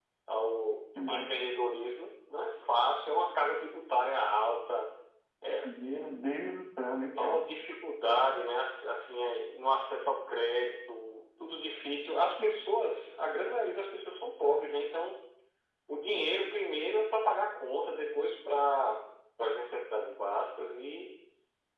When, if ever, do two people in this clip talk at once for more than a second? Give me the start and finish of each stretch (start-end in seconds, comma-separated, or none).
none